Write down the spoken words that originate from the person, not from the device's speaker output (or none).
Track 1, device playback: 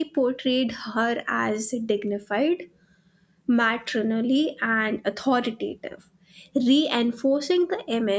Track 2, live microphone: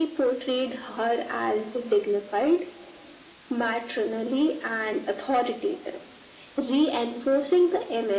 none